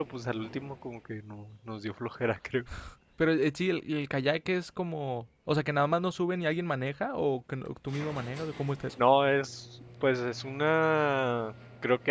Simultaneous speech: No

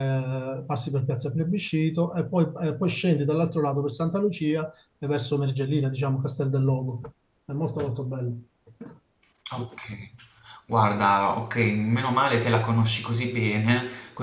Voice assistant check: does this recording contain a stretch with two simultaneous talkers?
No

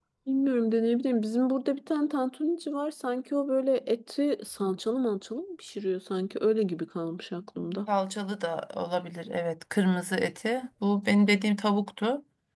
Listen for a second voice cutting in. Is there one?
No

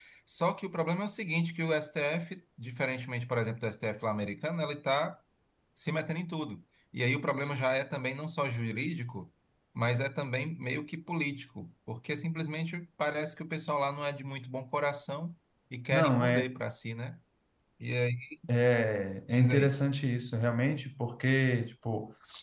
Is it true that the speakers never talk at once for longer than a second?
Yes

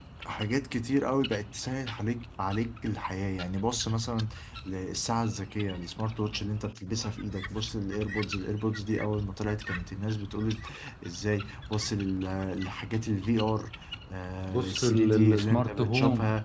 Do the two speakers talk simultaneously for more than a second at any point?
Yes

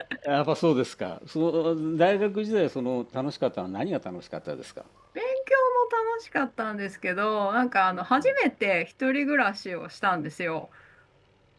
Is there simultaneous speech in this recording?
No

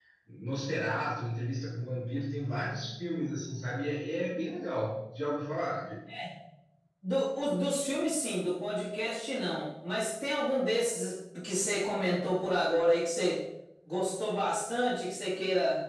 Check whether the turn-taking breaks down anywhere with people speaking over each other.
No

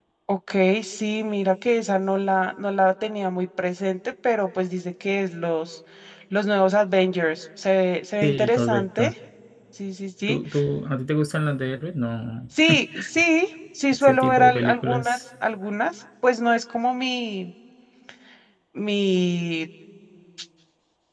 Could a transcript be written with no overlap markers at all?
No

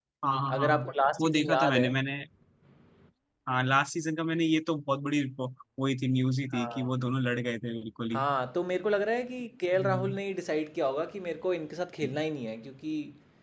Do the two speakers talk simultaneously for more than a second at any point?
Yes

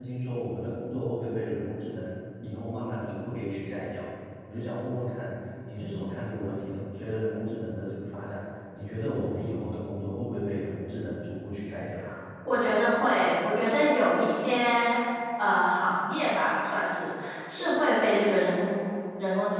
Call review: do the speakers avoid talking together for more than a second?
Yes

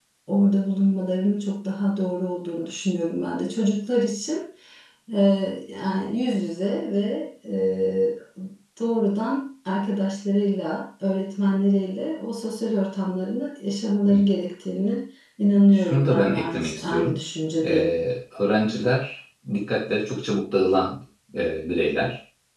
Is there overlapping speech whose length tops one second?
Yes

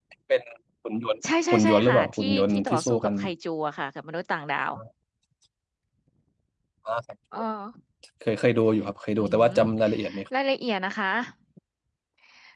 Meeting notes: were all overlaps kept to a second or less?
No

